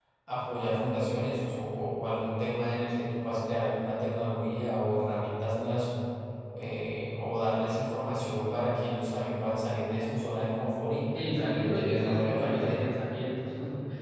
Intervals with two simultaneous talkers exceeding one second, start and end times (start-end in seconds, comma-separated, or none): 11.1-12.8